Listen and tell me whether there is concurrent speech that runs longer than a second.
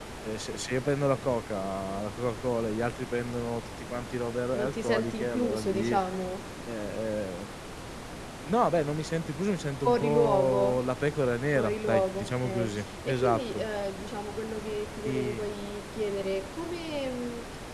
Yes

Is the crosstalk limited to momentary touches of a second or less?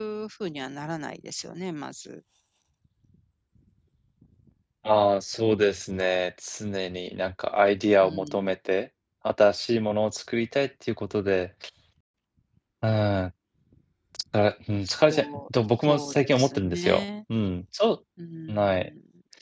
No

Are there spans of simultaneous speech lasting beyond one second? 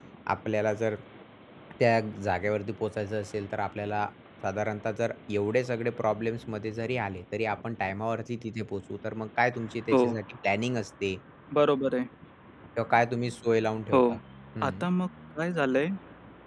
No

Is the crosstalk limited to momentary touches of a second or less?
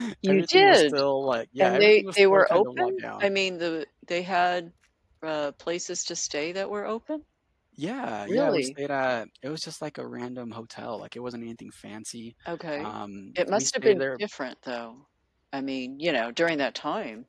No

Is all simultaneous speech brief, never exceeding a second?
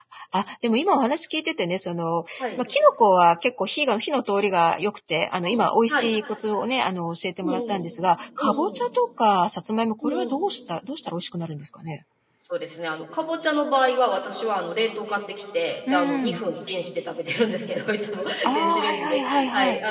No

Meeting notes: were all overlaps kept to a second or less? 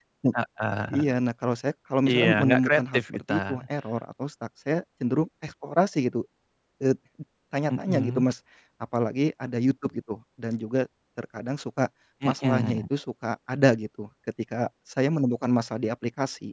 No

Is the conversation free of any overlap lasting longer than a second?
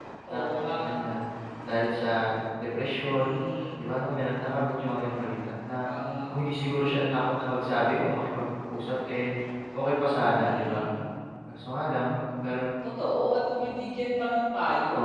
Yes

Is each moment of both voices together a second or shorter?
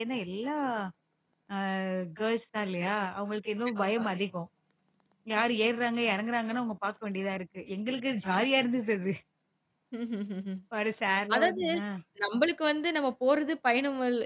Yes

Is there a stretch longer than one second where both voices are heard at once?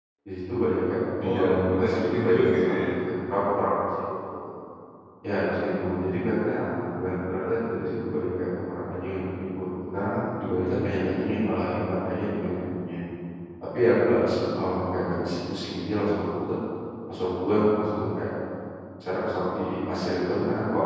Yes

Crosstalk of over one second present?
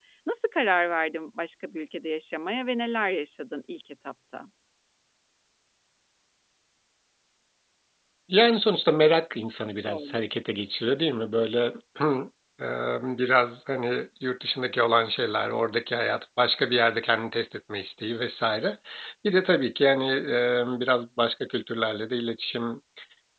No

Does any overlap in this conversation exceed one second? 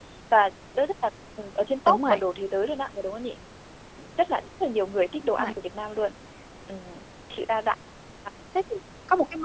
No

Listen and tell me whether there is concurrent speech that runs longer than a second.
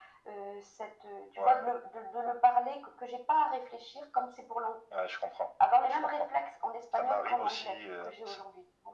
Yes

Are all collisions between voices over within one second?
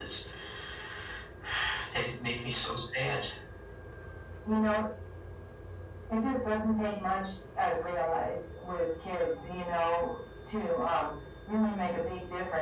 Yes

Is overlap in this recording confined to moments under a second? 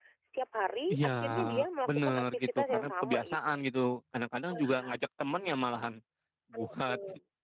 No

